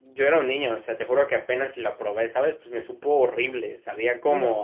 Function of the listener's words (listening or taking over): taking over